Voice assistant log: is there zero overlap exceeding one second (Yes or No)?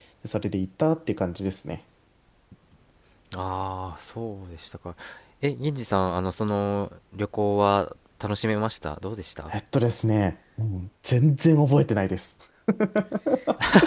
Yes